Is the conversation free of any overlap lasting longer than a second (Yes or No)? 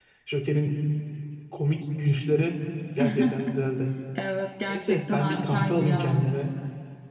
No